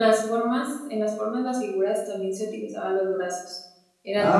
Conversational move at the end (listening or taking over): taking over